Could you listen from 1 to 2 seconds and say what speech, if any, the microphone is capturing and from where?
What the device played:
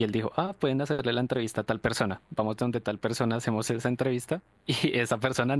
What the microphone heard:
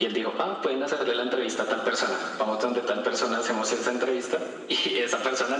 echo only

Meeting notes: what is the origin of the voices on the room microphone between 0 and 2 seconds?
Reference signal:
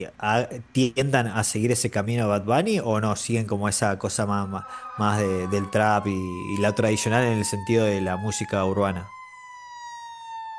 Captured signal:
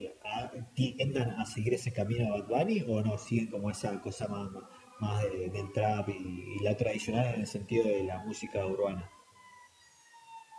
echo only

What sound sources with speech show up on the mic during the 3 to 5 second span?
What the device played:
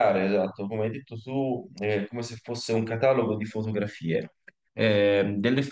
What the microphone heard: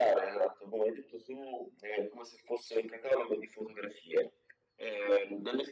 echo only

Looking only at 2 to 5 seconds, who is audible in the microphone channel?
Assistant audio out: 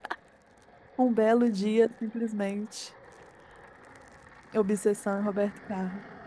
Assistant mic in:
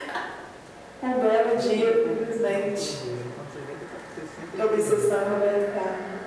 both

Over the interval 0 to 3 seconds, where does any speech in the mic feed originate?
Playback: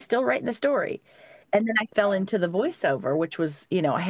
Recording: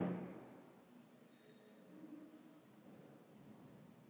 neither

